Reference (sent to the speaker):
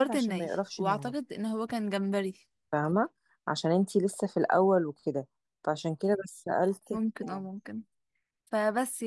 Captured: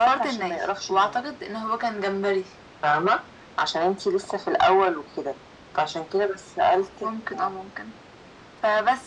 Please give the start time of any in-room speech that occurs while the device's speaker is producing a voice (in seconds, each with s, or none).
none